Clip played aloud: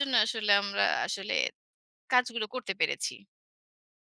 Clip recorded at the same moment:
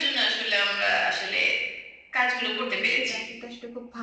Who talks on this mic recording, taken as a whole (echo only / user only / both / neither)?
both